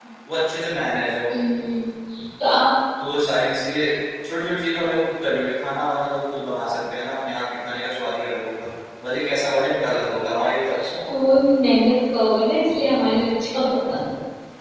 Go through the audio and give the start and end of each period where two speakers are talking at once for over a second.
none

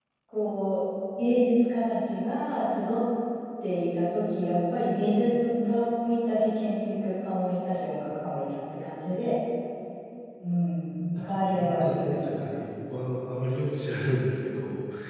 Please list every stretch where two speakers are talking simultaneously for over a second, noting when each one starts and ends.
11.2-12.8

